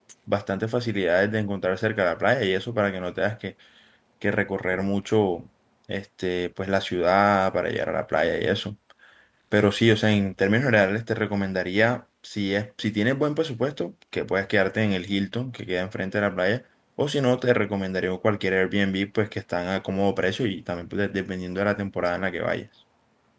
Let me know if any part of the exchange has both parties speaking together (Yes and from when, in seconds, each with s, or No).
No